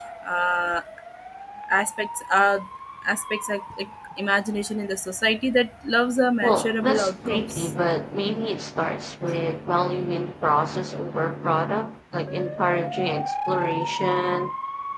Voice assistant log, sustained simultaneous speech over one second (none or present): present